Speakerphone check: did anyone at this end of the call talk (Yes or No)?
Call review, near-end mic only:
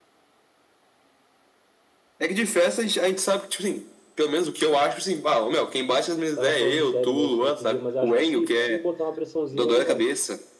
Yes